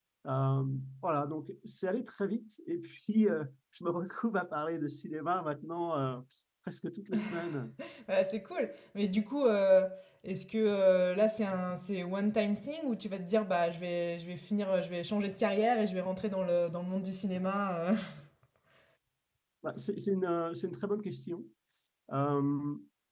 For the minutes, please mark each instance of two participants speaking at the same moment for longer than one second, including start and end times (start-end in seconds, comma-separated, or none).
none